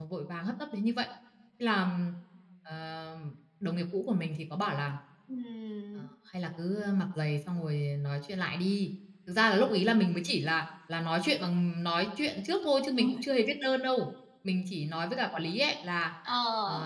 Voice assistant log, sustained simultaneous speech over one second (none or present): none